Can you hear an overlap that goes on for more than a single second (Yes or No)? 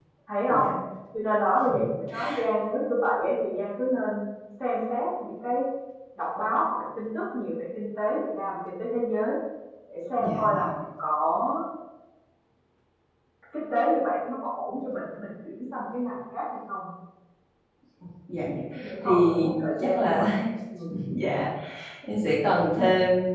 Yes